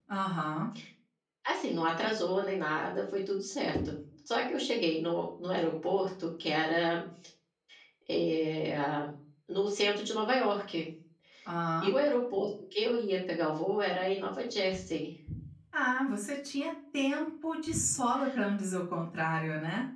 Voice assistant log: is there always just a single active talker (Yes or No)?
Yes